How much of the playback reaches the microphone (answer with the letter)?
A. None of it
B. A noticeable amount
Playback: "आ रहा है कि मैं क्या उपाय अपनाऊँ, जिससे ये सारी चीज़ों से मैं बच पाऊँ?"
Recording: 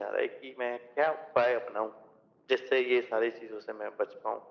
B